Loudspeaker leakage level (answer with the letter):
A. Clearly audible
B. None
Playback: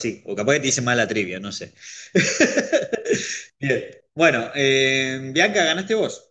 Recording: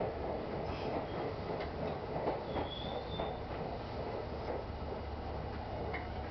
B